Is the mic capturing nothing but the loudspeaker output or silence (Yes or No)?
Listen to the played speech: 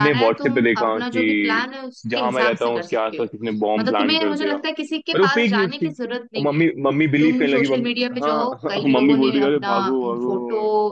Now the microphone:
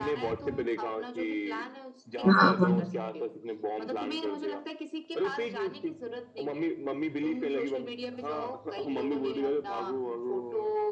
No